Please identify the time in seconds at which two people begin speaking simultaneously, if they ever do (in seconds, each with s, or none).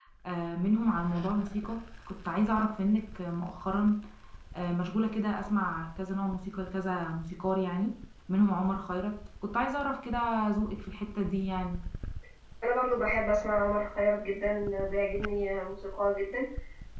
none